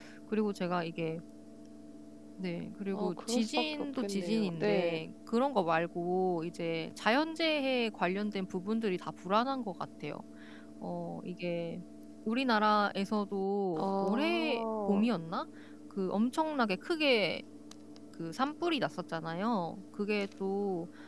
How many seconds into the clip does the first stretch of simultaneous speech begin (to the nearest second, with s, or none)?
3 s